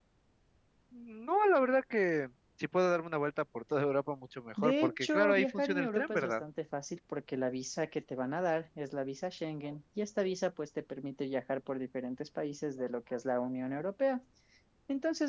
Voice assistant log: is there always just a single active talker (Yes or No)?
No